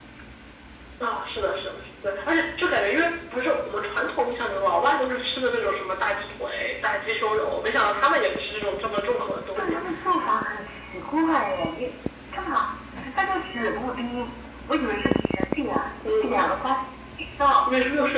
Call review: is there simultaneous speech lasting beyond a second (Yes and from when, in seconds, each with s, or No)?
No